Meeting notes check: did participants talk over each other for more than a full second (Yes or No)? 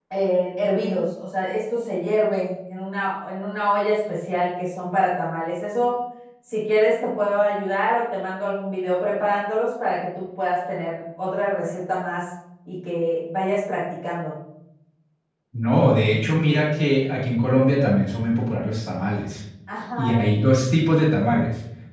No